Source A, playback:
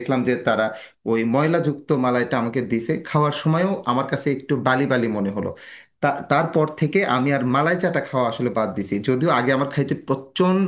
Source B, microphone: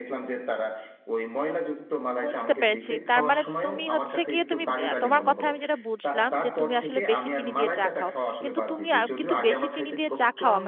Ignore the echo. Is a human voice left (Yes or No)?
Yes